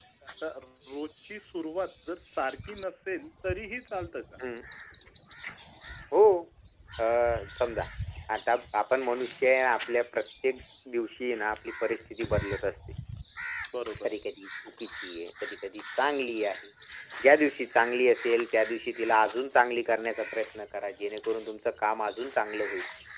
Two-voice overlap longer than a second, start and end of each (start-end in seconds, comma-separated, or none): none